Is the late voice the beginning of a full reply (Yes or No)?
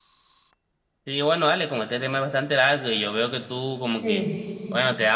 No